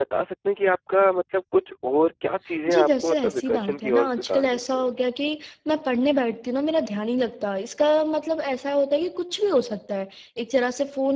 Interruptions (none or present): present